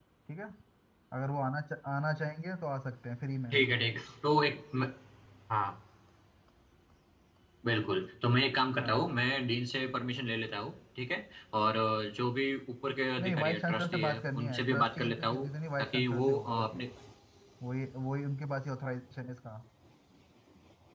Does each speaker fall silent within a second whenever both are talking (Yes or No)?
No